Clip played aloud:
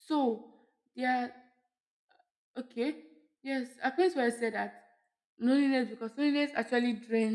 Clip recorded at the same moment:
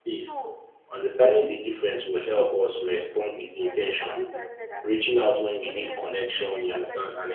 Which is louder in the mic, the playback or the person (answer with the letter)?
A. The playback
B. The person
B